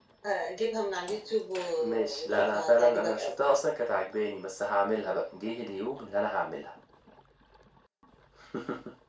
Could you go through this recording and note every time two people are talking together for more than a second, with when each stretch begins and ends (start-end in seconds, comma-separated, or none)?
1.8-3.3